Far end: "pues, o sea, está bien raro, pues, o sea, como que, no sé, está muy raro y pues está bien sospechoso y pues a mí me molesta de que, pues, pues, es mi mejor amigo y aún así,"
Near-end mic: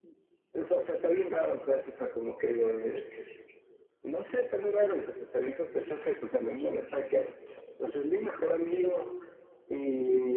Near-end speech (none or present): none